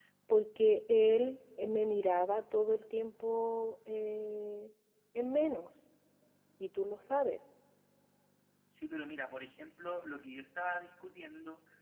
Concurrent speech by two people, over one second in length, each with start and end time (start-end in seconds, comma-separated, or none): none